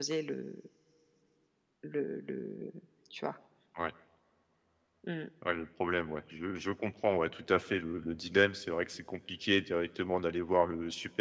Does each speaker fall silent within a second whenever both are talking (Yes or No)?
Yes